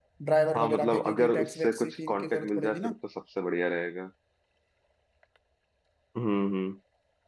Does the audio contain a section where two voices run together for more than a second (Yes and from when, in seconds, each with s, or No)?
Yes, from 0.5 s